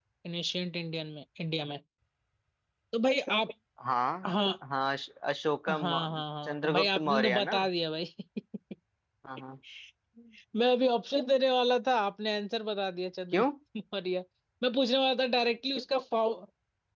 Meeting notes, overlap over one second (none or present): present